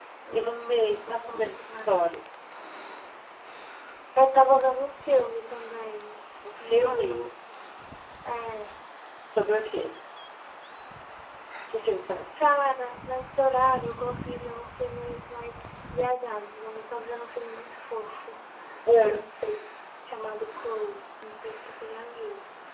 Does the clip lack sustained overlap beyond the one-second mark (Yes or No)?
No